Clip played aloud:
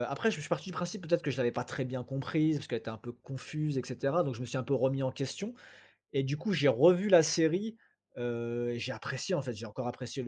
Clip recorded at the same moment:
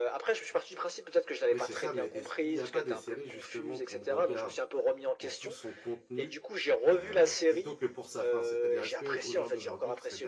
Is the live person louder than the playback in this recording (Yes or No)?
No